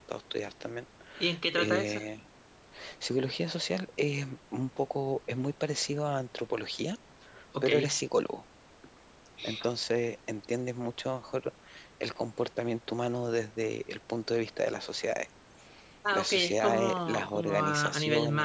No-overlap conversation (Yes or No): No